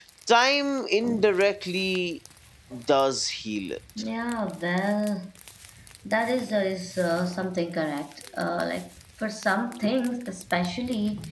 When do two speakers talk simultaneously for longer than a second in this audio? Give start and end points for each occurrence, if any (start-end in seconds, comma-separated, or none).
none